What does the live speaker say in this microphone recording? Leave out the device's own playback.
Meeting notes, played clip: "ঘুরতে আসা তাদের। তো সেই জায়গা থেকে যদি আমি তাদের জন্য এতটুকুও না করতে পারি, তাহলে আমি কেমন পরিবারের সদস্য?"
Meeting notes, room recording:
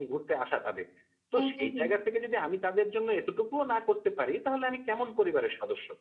হুম, হুম, হুম।

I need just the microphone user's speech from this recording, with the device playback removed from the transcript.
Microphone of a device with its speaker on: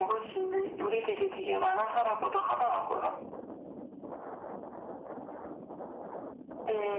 none

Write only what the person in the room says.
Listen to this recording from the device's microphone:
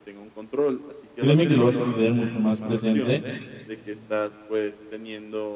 créeme que lo vas a tener mucho más presente

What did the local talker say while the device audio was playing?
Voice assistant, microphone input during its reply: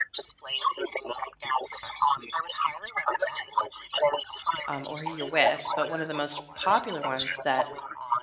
um, or who you're with. But one of the most popular ones that

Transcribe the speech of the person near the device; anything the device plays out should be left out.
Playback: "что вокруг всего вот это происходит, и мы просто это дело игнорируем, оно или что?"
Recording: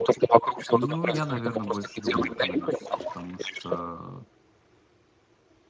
Ну, я, наверное, больше думаю экономическое, потому что

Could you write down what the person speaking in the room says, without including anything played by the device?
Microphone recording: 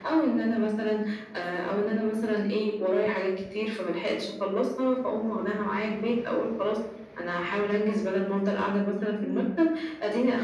إمم.

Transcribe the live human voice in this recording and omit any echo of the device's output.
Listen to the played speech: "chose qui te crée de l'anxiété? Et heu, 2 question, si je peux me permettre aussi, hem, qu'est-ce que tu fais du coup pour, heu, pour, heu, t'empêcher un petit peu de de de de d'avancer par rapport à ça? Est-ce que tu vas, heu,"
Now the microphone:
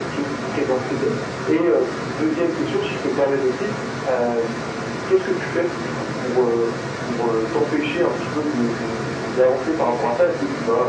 none

